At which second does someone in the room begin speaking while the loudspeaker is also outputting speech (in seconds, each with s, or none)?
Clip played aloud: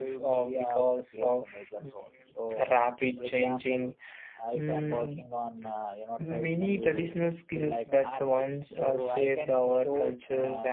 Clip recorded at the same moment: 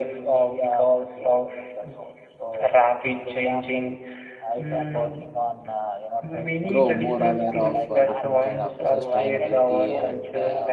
6.6 s